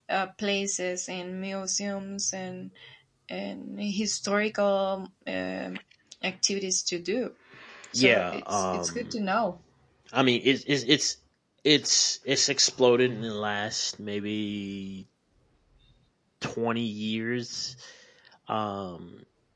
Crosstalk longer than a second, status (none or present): present